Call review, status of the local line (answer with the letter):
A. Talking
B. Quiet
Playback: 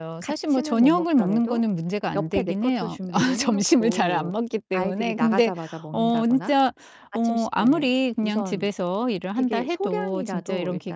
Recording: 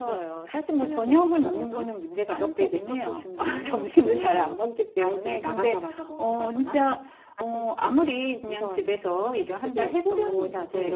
A